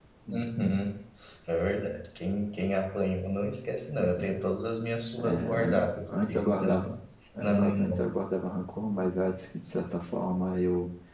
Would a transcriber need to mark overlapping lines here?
Yes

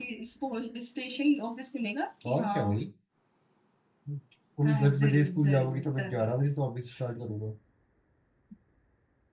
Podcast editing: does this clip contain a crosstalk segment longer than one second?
Yes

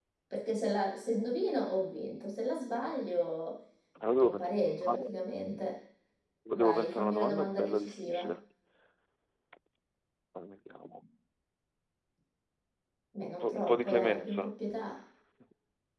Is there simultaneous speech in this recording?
Yes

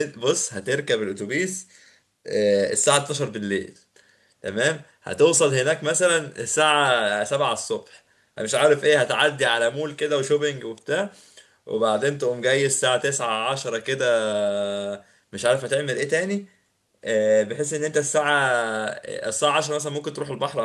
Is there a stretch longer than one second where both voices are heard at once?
No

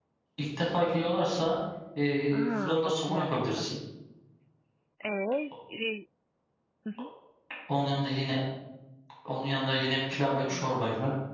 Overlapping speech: Yes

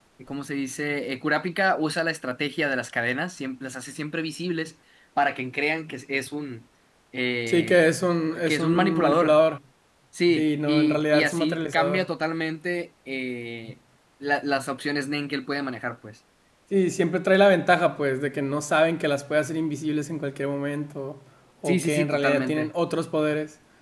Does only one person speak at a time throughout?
No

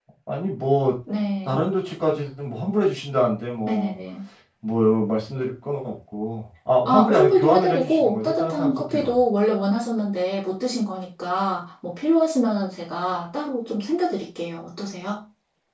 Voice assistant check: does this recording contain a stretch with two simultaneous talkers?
Yes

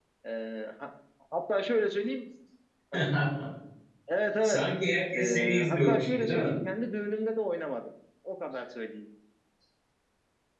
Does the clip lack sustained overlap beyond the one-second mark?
No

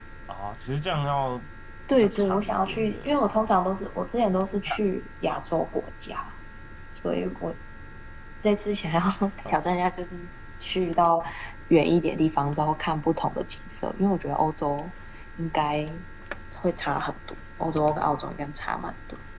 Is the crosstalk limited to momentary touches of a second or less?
No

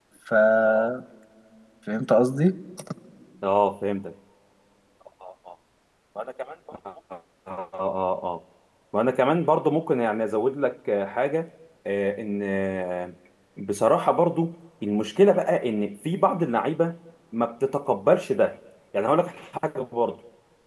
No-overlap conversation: Yes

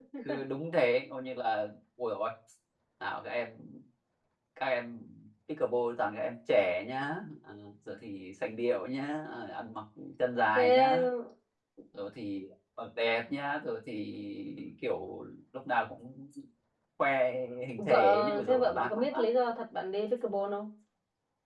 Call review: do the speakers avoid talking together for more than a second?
No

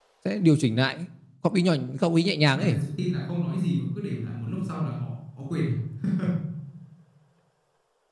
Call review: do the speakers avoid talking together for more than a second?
Yes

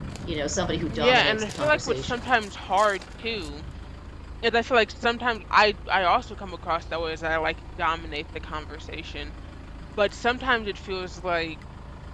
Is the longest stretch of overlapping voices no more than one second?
No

